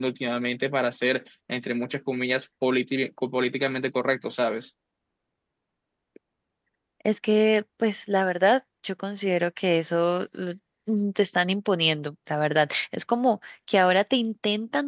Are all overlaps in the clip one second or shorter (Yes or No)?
Yes